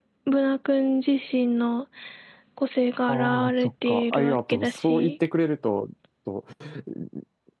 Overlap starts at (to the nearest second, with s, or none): 3 s